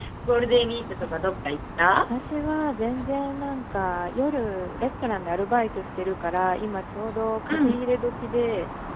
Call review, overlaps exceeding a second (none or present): none